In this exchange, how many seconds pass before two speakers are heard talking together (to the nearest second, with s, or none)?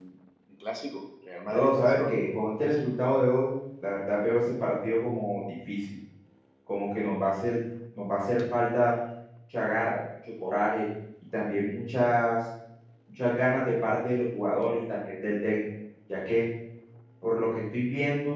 1 s